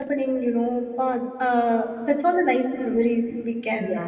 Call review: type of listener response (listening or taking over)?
taking over